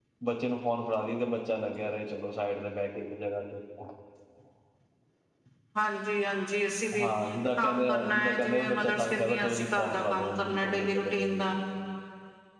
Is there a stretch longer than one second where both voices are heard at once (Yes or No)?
Yes